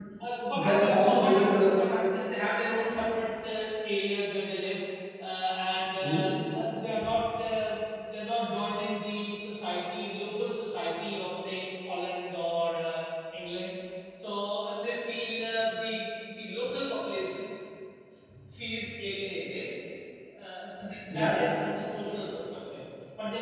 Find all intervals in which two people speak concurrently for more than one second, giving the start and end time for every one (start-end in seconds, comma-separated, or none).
0.6-1.8